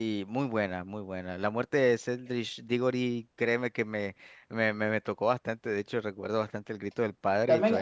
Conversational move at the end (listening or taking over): taking over